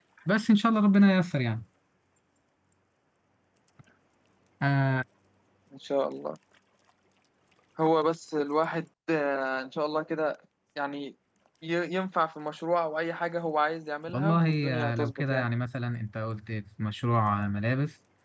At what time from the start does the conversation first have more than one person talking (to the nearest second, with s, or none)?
14 s